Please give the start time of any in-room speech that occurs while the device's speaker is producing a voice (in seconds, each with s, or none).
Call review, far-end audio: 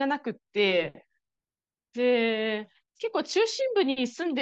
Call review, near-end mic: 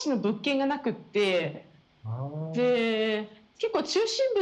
2.0 s